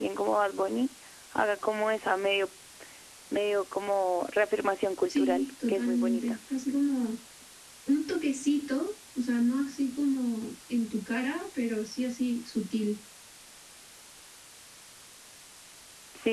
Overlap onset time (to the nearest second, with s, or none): 5 s